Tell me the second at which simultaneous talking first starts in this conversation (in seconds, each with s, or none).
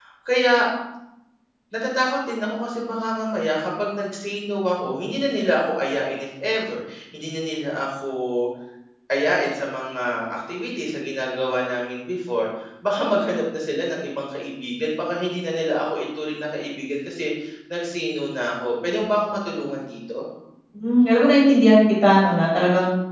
none